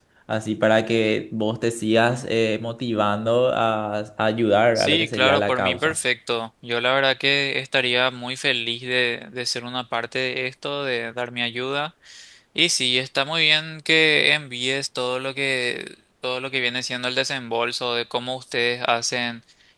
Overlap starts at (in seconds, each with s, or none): 4.8 s